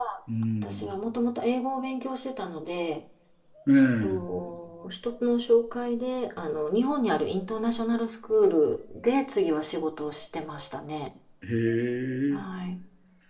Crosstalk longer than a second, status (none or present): none